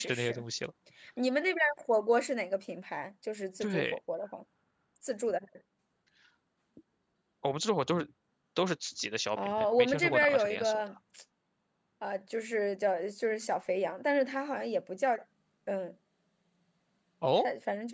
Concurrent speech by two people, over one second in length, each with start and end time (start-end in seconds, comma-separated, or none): 9.4-10.8